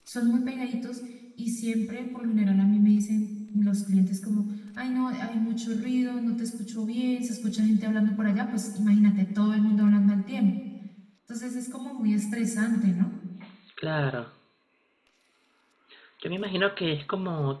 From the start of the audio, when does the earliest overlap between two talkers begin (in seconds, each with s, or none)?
none